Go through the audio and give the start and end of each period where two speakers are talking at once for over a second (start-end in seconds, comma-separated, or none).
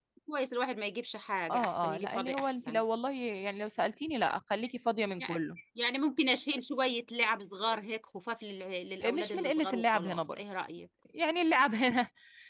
1.5-2.8, 9.0-10.4